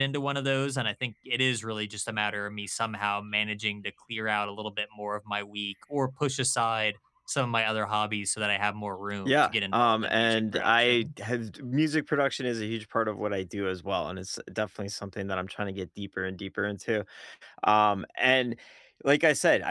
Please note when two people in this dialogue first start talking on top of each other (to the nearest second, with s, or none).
9 s